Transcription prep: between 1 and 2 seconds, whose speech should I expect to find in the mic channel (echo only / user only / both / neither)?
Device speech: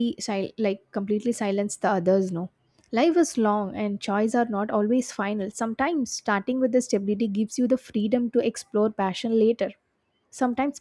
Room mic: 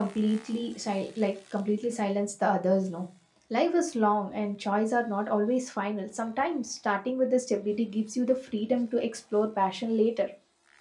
echo only